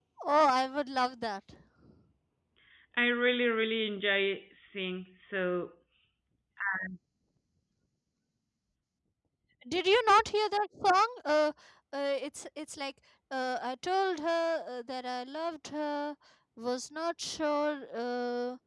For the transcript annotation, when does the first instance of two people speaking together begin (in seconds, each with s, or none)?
none